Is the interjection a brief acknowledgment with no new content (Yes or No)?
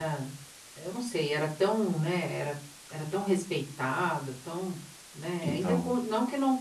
Yes